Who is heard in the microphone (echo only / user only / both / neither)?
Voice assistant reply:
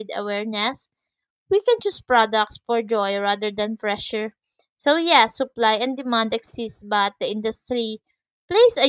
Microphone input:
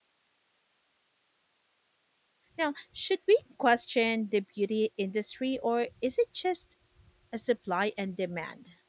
user only